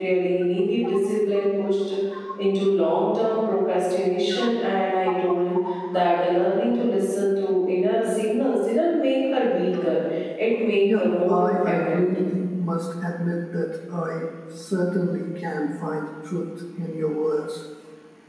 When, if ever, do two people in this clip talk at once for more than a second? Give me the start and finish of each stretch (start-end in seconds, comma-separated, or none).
10.8-12.1